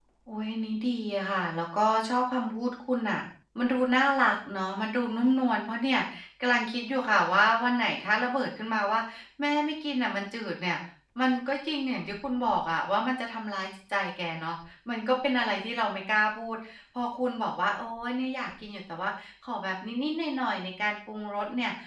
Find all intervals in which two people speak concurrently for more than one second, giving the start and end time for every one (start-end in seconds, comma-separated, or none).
none